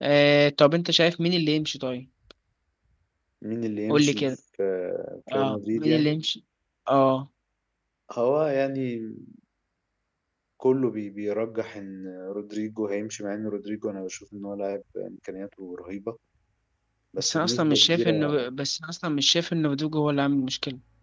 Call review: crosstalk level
present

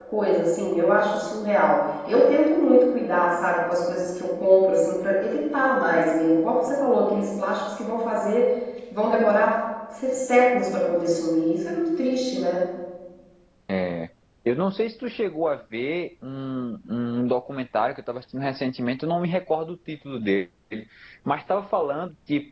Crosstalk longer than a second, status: none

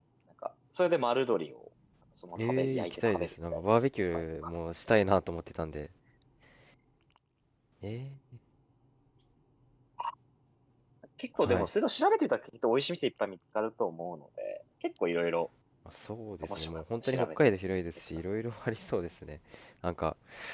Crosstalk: present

